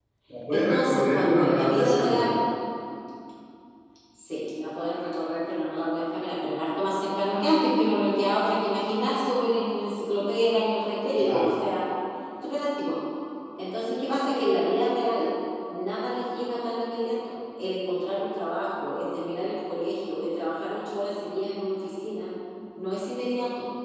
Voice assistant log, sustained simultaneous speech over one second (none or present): present